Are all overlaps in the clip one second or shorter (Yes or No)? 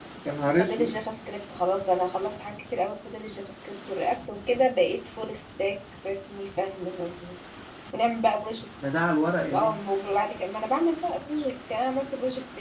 Yes